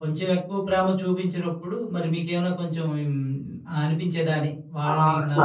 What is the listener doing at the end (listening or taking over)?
taking over